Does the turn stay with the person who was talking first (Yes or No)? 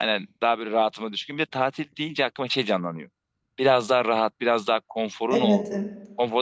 Yes